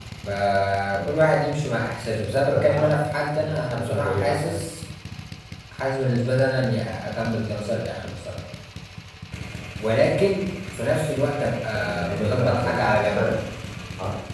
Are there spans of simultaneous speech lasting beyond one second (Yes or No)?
Yes